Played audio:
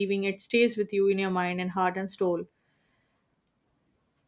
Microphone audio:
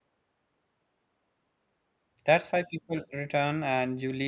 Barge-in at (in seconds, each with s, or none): 2.2 s